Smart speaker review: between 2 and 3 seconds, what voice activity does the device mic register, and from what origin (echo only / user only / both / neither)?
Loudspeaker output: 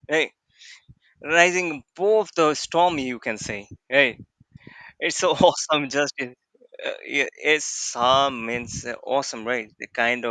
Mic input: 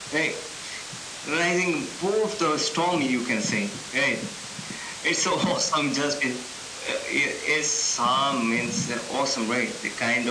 echo only